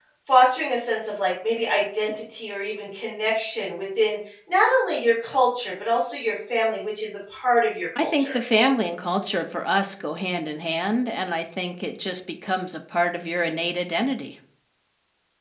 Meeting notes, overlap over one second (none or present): none